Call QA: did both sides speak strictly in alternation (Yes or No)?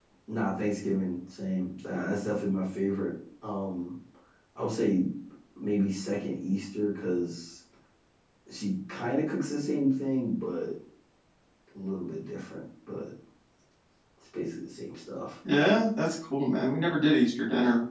Yes